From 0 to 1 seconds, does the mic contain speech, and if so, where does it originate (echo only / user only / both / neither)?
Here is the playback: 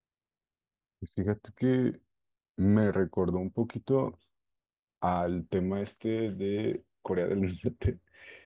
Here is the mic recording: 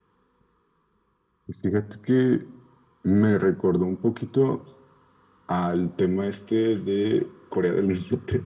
neither